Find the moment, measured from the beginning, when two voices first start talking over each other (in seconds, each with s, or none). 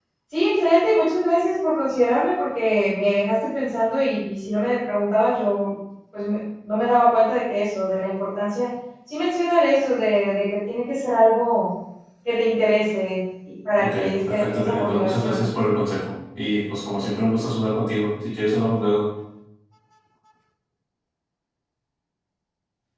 13.8 s